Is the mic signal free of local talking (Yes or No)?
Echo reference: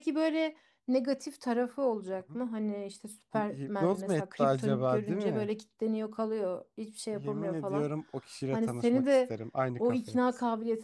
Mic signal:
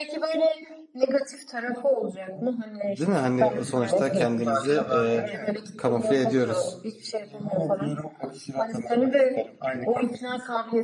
No